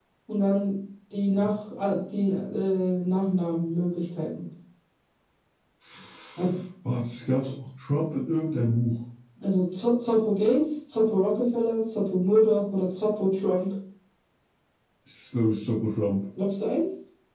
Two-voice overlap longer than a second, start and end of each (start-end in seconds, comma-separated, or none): none